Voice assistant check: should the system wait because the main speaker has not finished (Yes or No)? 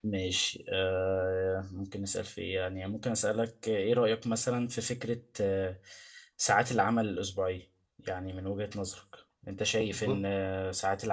Yes